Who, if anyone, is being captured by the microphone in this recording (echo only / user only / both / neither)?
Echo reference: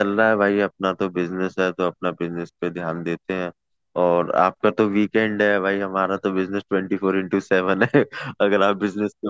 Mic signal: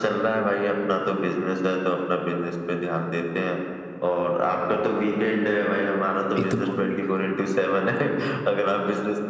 both